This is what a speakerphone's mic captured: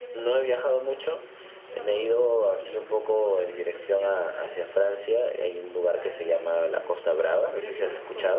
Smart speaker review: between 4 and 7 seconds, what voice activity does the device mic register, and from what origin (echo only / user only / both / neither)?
both